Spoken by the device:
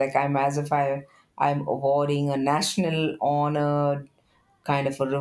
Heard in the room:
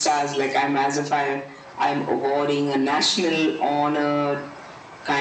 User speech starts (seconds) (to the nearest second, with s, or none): none